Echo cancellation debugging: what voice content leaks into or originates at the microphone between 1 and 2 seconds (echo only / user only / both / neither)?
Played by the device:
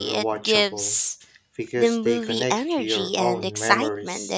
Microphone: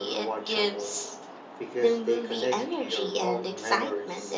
echo only